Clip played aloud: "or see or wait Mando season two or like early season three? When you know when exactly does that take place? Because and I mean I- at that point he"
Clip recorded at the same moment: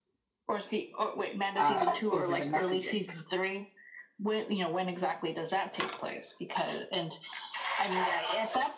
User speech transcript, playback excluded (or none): uh, over the messaging,